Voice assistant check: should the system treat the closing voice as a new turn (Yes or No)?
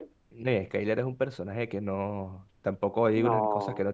No